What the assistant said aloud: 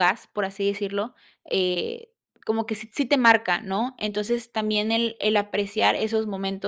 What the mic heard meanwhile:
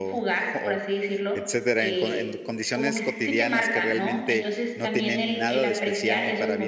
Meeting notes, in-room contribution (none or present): present